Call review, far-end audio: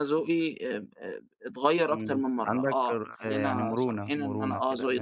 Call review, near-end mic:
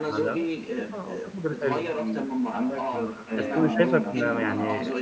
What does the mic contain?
both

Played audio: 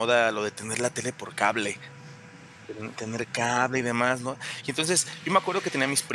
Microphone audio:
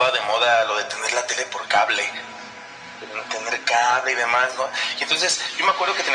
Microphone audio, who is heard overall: echo only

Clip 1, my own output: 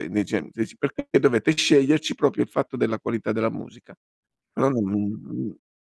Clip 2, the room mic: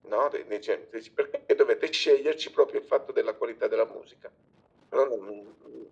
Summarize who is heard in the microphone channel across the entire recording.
echo only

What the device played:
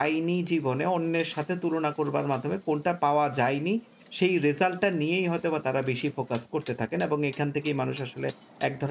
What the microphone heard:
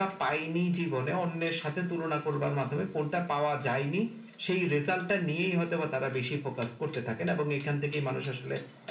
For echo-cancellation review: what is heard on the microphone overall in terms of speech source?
echo only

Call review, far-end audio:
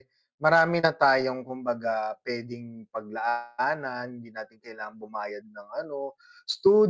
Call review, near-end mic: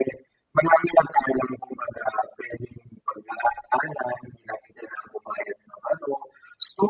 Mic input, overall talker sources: echo only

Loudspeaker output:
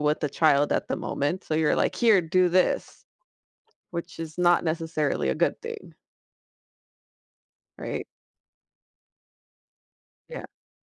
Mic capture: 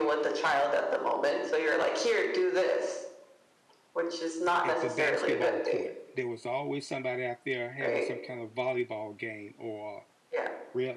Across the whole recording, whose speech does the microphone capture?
both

